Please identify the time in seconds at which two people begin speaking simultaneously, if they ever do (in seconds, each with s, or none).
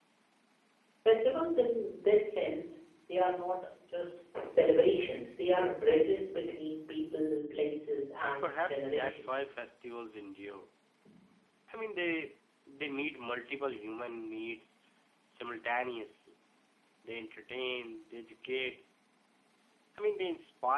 8.2 s